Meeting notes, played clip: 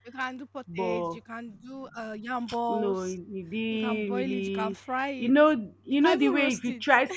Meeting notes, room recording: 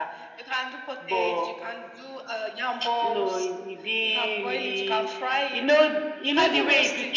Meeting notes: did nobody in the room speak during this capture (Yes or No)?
Yes